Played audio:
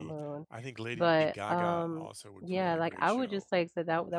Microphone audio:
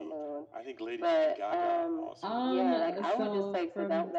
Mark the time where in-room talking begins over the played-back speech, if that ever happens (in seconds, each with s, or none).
2.2 s